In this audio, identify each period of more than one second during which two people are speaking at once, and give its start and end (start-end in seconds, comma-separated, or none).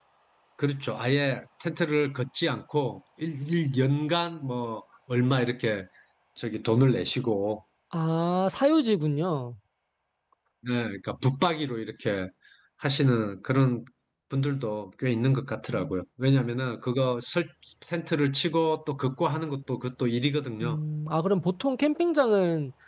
none